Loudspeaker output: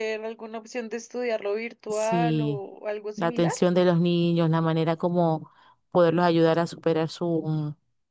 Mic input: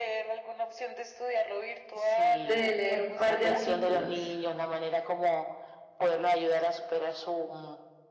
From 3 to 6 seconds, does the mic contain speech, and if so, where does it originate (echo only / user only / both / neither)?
both